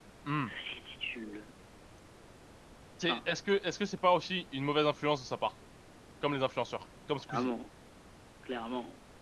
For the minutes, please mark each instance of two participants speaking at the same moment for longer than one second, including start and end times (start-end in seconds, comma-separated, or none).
none